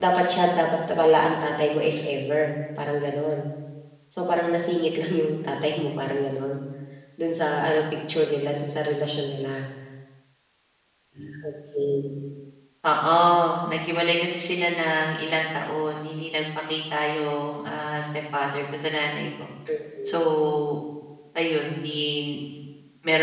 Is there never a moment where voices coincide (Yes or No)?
Yes